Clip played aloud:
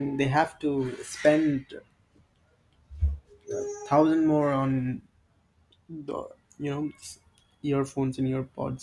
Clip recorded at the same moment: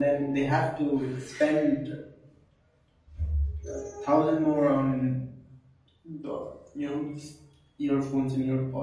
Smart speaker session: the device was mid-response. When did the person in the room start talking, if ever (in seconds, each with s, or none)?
none